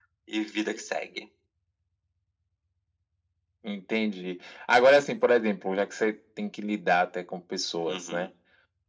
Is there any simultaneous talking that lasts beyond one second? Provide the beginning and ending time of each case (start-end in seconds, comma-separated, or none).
none